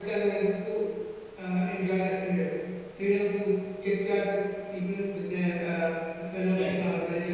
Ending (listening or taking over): listening